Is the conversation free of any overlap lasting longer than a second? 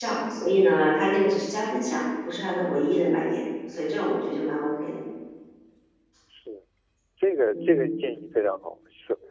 Yes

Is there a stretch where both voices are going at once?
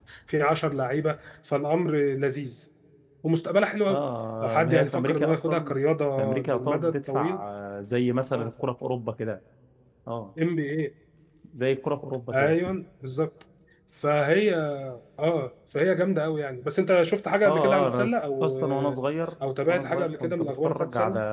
Yes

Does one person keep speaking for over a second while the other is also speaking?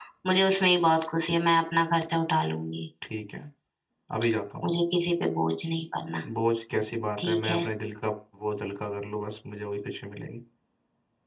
No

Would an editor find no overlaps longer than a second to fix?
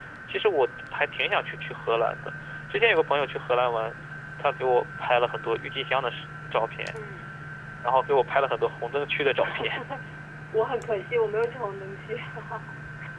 Yes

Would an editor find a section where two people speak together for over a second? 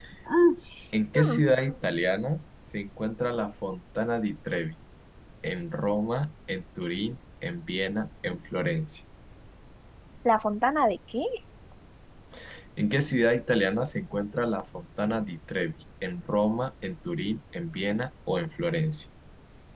No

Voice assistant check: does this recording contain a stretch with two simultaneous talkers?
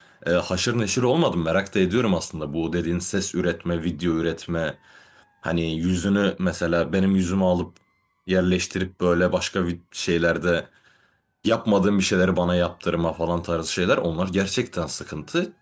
No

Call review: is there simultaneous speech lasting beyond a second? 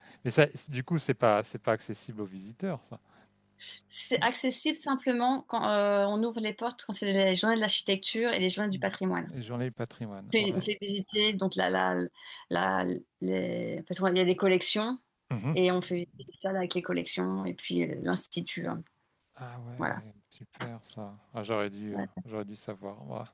No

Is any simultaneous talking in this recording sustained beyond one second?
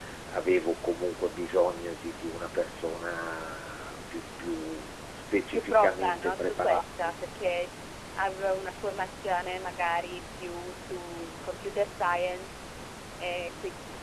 Yes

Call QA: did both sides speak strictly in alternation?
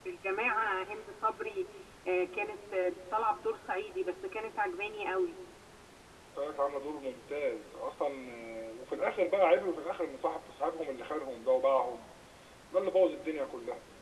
Yes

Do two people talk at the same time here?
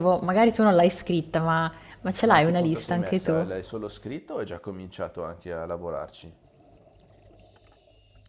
Yes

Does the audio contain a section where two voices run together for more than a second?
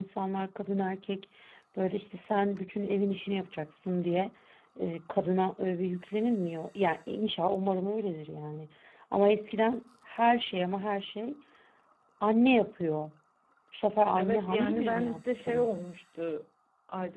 Yes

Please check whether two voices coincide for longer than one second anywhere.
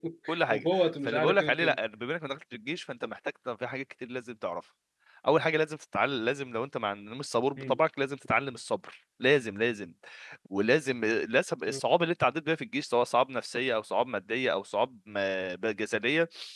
Yes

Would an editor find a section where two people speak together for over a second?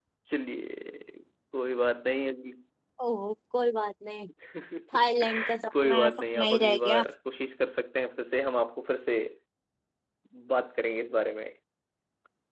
Yes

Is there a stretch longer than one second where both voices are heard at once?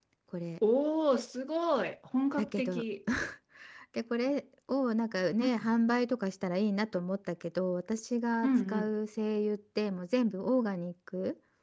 No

